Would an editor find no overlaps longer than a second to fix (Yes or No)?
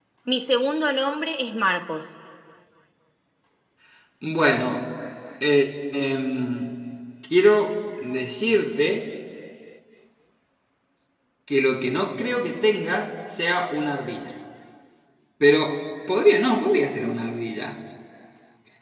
Yes